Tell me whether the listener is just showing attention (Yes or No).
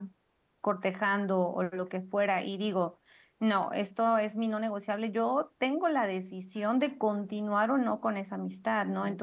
Yes